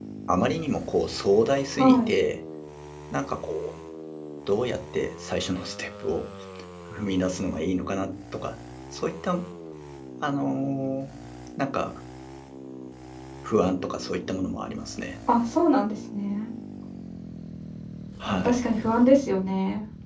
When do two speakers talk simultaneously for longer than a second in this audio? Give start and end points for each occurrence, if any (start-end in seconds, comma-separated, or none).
none